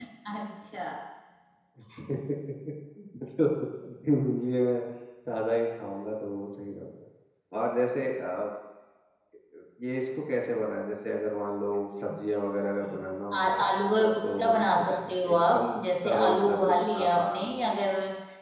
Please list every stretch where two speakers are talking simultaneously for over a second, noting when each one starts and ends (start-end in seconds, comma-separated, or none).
14.9-17.6